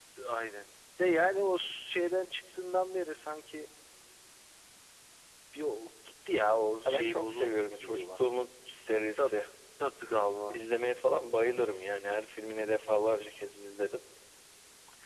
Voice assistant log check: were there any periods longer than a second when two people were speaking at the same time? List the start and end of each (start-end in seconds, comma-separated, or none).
6.8-8.3